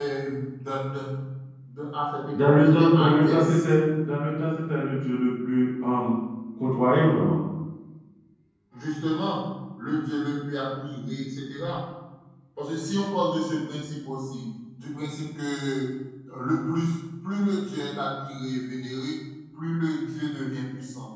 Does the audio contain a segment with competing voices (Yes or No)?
Yes